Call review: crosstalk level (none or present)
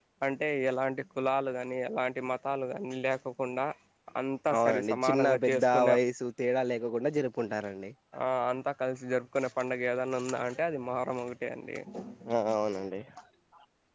present